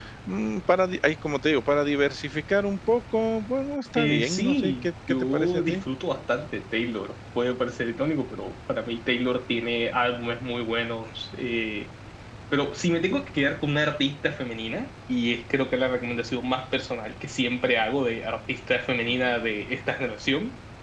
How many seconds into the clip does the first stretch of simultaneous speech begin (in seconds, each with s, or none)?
4.0 s